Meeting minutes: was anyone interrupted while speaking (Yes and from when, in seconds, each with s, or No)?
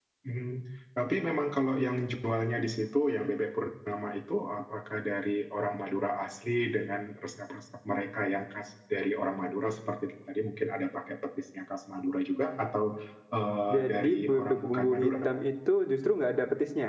Yes, from 13.7 s